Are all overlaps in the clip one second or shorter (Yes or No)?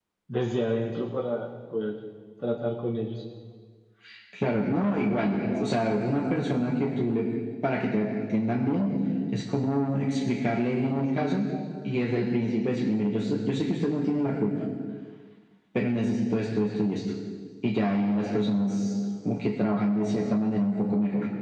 Yes